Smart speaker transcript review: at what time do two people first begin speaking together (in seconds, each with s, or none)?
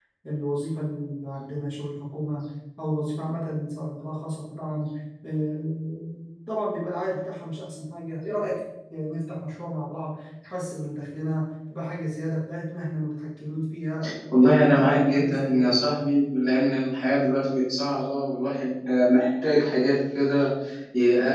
14.4 s